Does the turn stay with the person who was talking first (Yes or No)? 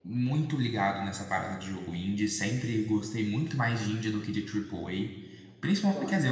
Yes